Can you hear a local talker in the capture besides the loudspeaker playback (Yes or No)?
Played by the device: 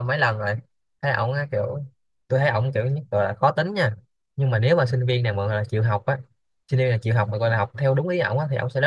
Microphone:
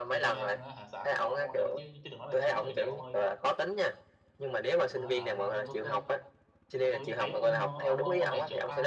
Yes